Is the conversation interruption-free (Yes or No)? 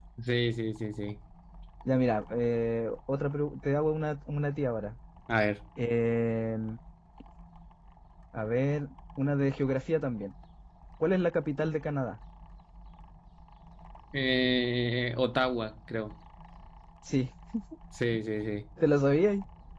Yes